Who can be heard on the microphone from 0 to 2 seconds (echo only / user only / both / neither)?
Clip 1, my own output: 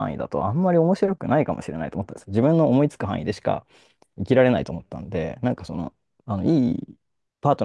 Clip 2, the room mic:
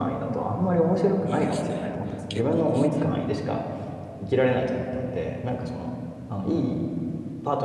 both